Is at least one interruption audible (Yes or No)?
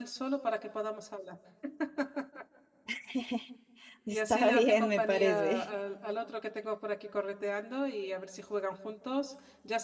Yes